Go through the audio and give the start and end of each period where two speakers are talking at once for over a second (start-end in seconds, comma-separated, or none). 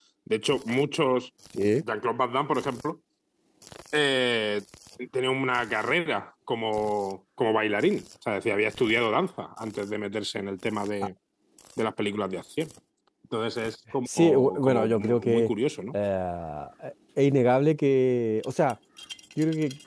14.1-15.4